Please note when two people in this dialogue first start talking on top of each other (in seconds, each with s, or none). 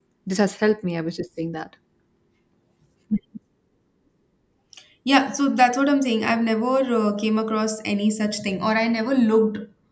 none